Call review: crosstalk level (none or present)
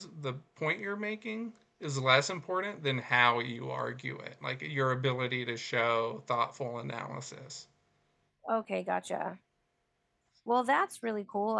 none